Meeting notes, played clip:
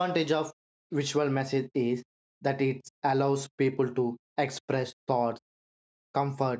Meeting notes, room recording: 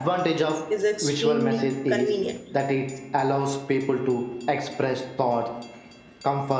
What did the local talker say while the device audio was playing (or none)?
is extremely convenient.